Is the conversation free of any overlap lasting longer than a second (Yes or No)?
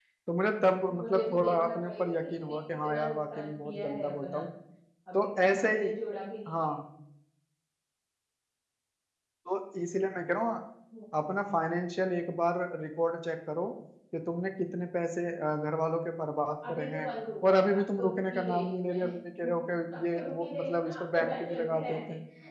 No